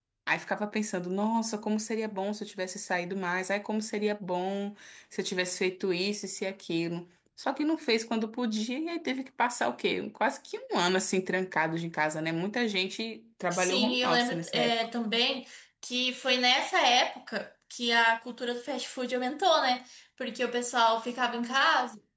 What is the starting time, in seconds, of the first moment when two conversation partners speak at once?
13.5 s

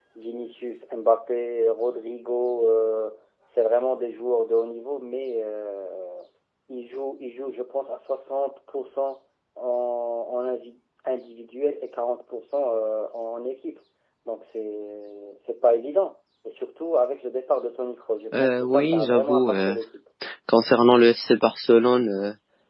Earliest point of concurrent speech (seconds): 18.3 s

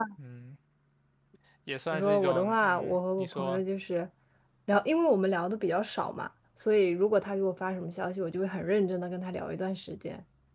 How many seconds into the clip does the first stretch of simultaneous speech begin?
1.9 s

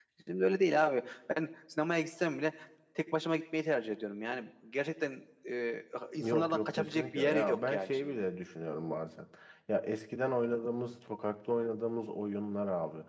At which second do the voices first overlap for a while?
6.2 s

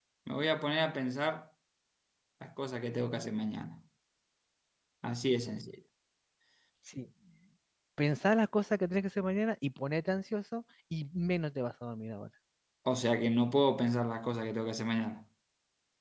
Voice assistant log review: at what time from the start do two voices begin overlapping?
none

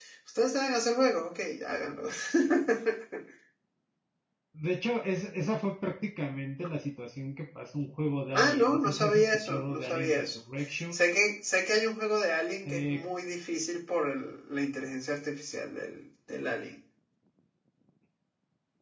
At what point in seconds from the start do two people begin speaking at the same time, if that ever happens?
8.3 s

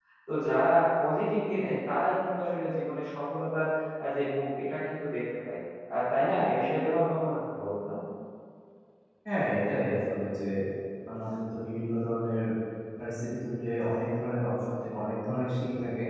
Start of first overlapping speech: none

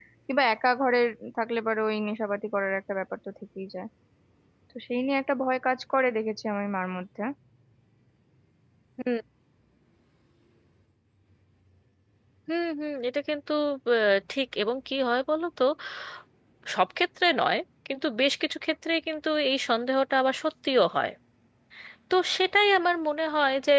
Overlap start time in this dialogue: none

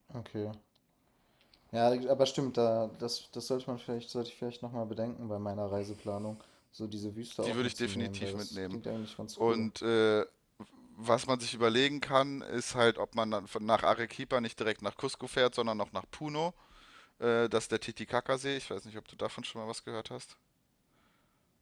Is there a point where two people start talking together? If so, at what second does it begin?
7.4 s

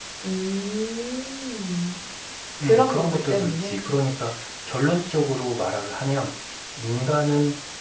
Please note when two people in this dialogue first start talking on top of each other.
2.6 s

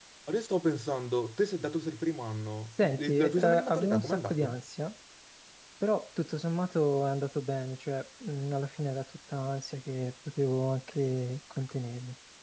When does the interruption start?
2.8 s

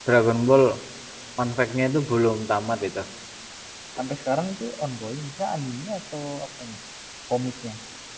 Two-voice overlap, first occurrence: none

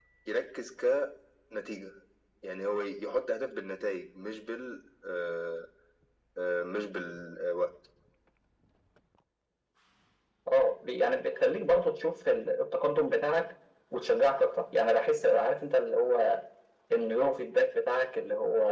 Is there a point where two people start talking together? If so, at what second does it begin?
none

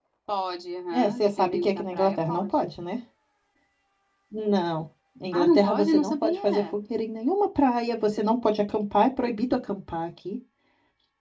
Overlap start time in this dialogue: 0.9 s

